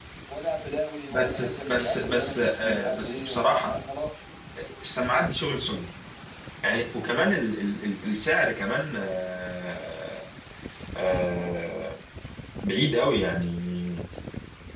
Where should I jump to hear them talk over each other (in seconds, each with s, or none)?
1.1 s